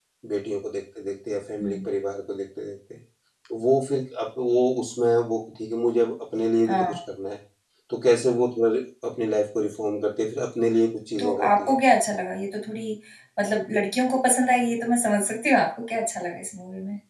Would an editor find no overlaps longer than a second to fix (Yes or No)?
Yes